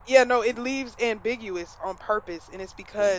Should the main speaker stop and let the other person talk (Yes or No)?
No